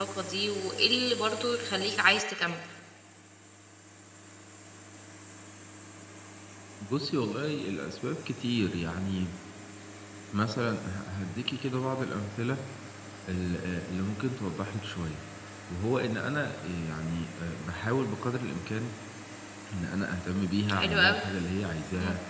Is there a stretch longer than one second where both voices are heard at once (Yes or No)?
No